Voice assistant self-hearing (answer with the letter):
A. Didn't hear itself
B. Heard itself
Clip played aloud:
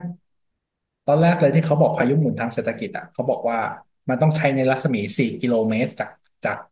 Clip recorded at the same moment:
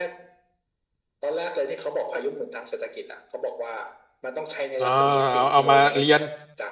B